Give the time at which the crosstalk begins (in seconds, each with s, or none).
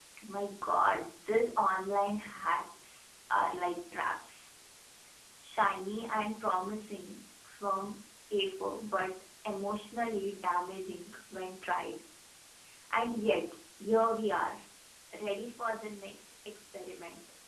none